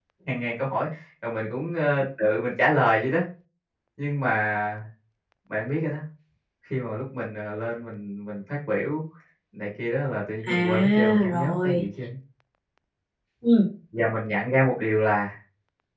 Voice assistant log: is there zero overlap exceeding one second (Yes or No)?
No